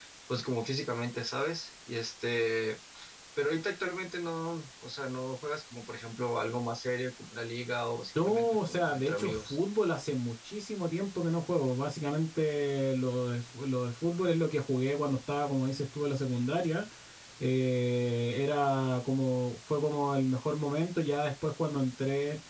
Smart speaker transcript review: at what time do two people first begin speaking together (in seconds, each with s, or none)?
8.2 s